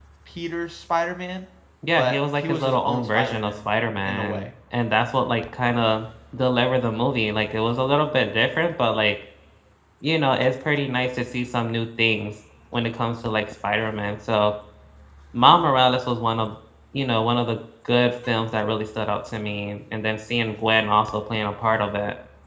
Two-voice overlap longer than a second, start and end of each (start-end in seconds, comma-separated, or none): 2.0-3.7